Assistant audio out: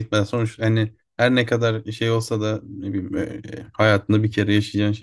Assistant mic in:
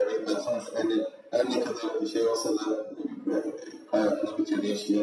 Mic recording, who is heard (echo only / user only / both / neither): echo only